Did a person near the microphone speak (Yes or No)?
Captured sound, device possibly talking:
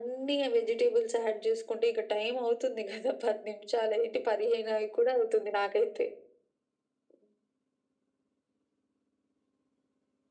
No